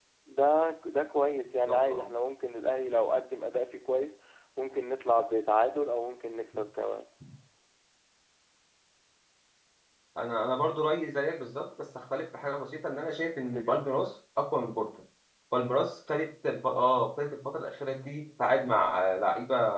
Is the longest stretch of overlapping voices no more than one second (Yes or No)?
Yes